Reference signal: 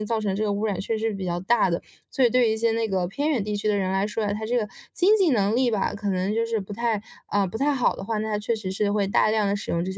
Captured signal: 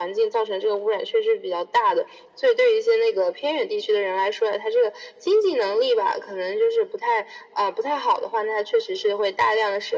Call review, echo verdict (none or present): present